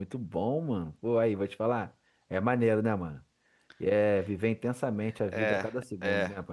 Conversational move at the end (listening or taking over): taking over